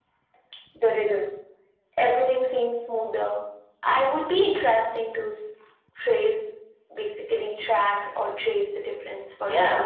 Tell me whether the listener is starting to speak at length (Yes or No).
Yes